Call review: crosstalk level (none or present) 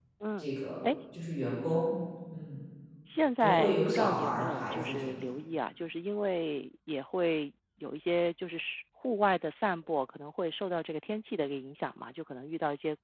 present